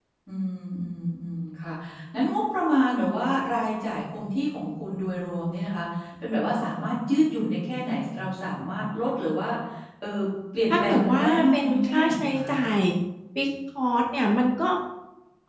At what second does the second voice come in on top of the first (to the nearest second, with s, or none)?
11 s